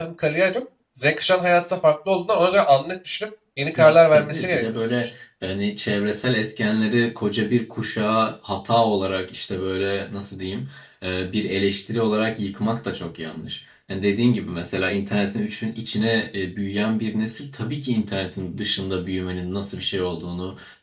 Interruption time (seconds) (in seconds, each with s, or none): 3.8 s